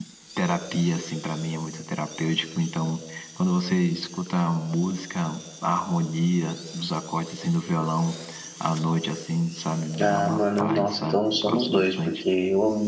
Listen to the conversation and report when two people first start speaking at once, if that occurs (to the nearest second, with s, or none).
10 s